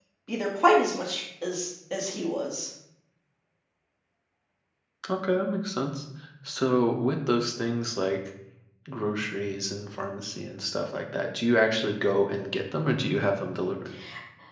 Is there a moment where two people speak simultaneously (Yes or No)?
No